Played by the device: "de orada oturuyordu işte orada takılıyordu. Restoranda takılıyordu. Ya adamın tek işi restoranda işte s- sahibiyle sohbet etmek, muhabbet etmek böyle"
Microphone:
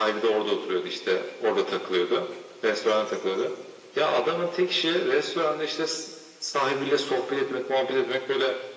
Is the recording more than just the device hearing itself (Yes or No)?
No